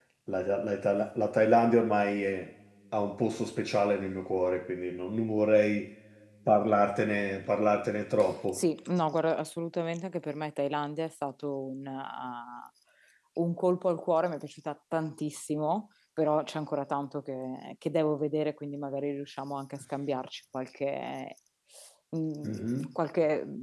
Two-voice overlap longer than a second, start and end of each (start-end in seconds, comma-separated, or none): none